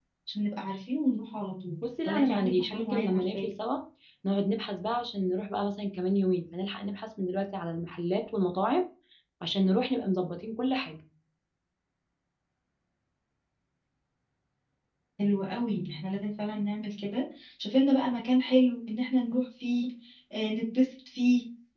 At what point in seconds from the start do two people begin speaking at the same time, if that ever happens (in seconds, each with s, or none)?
1.8 s